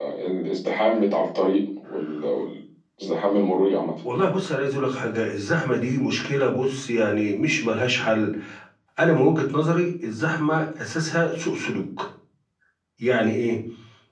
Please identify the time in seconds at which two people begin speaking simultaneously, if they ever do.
none

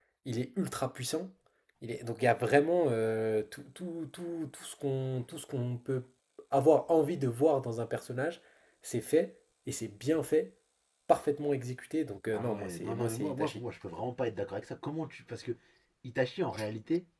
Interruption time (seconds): 12.3 s

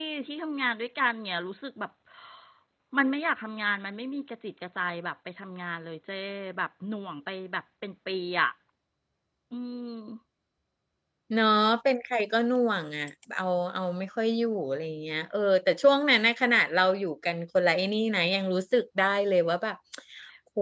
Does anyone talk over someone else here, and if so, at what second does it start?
none

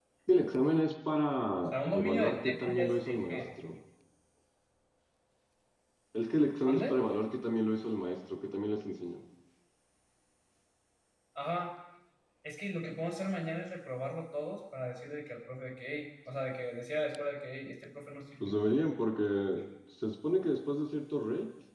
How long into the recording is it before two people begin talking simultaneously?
1.7 s

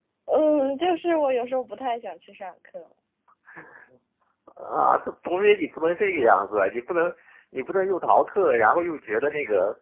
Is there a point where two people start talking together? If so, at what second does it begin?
none

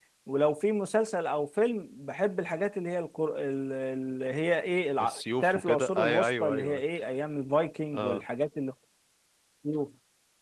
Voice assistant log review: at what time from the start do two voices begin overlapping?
5.0 s

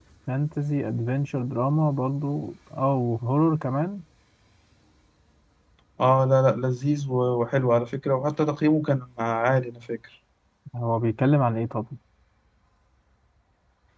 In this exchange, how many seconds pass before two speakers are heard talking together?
none

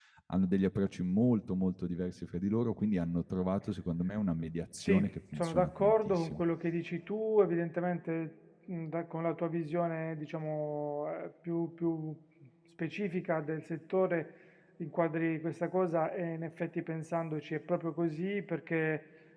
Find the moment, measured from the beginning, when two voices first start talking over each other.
4.8 s

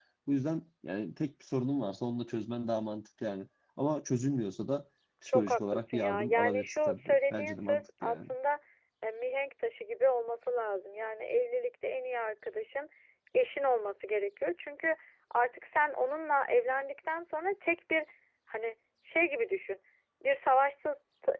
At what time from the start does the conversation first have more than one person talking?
5.3 s

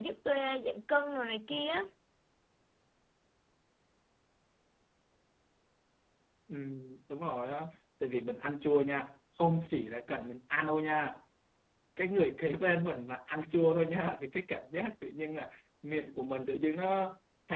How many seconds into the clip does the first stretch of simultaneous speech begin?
none

